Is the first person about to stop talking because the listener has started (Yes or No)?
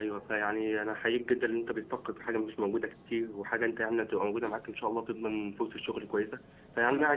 No